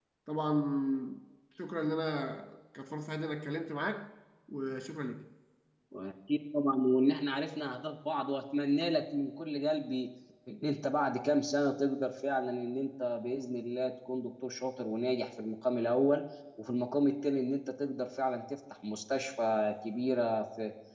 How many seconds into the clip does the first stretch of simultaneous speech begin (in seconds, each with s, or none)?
none